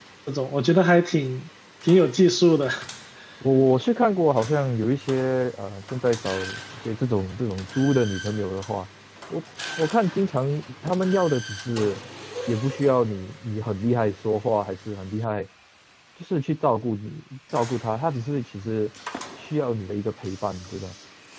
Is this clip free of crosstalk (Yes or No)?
Yes